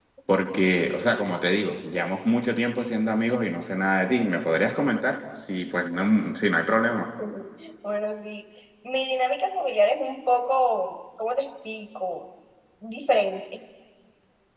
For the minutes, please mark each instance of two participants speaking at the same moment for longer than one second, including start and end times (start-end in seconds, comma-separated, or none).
none